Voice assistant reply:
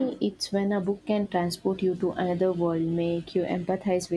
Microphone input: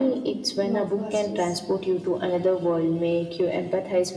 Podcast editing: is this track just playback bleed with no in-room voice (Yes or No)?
No